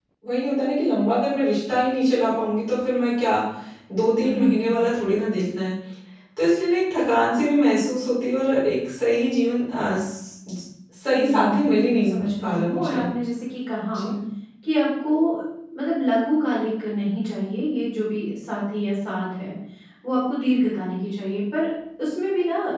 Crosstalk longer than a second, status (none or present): present